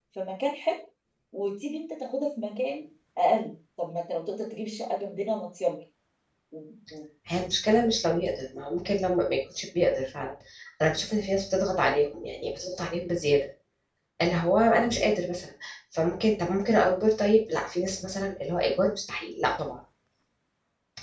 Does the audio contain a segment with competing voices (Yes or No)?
No